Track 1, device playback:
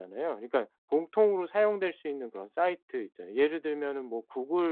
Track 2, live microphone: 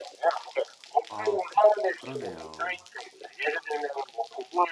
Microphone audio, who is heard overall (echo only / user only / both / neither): both